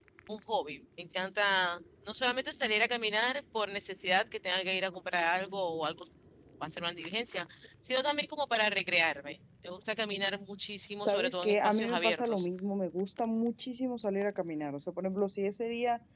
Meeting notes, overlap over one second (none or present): present